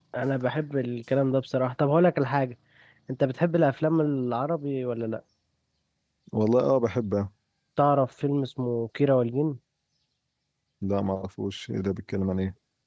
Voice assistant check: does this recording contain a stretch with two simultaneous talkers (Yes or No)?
No